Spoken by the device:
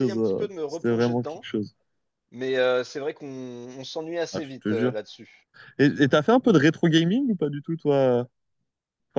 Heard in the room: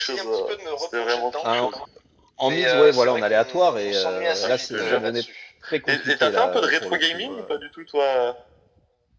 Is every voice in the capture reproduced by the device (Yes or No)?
No